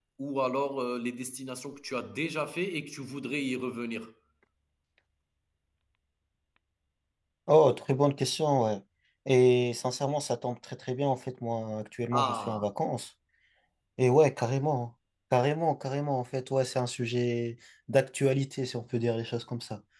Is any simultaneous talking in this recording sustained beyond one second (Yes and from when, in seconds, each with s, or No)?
No